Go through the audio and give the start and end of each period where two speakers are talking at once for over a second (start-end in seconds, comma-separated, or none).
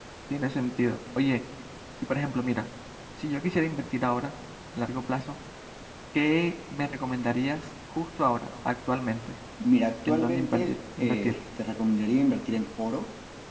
10.1-11.3